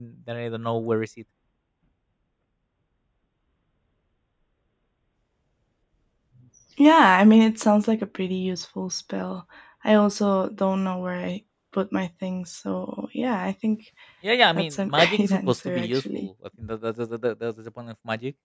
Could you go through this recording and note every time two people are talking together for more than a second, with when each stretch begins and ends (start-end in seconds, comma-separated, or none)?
14.7-16.3